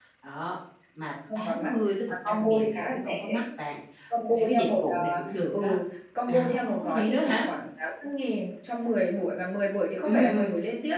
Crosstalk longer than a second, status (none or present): present